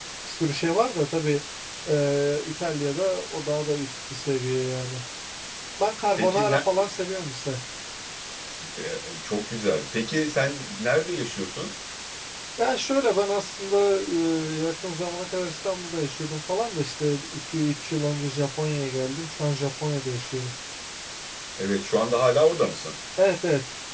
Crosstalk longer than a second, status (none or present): none